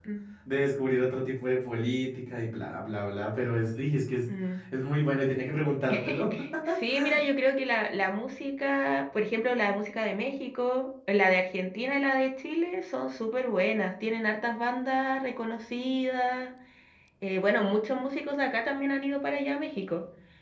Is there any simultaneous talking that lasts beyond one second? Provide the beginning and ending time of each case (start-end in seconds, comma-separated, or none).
none